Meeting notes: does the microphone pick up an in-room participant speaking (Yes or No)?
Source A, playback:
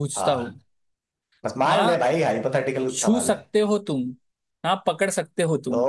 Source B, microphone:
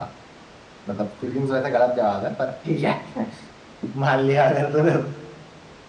Yes